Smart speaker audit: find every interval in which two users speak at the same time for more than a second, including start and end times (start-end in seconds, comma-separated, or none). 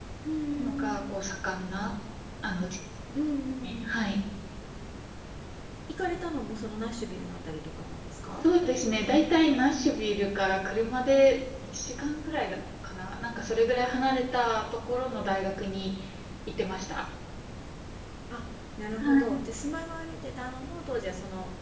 none